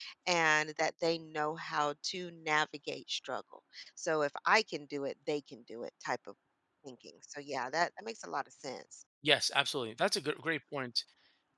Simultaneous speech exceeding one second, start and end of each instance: none

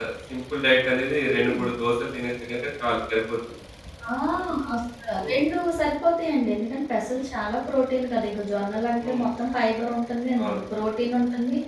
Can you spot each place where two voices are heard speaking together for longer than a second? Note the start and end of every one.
none

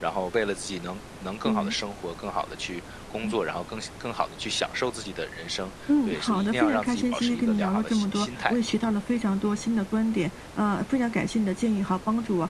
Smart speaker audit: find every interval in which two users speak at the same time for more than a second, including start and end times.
6.0-8.5

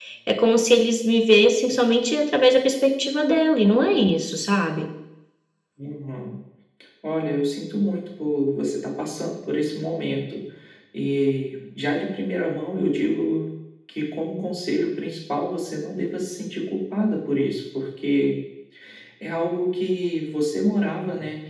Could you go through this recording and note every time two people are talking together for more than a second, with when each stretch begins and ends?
none

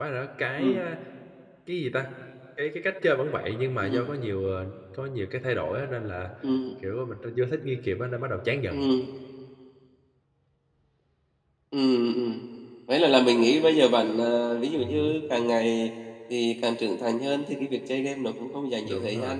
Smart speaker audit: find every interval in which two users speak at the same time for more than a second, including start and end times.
none

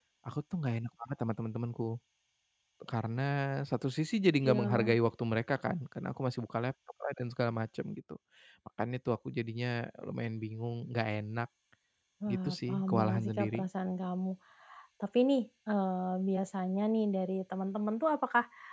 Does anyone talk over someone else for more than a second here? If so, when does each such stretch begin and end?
12.3-13.7

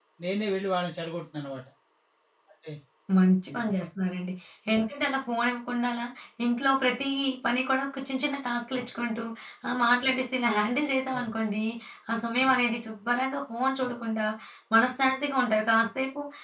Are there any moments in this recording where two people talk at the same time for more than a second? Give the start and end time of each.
none

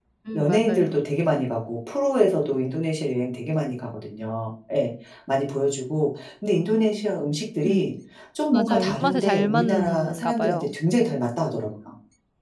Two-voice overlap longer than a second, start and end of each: 8.5-10.8

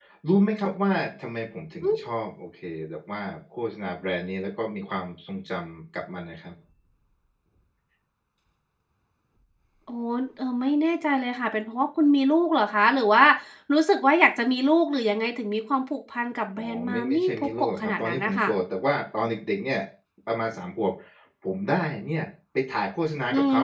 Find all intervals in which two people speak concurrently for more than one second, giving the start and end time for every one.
16.6-18.5

